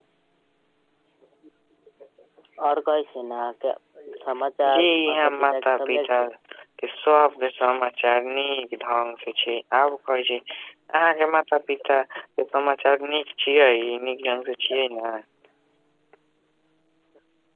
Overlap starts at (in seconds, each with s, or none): 4.7 s